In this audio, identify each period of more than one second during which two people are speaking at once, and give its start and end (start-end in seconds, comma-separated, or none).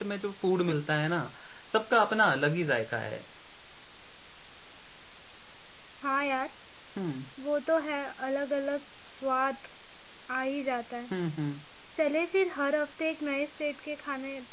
none